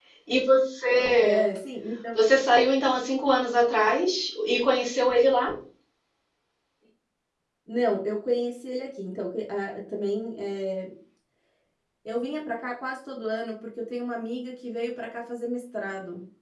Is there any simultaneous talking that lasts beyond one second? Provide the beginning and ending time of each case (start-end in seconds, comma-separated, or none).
none